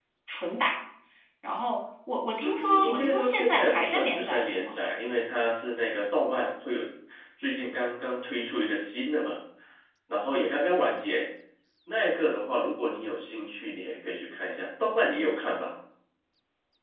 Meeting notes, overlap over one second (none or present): present